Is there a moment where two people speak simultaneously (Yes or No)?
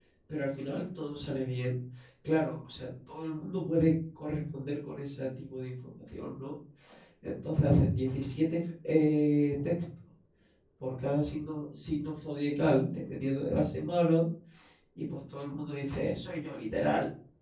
No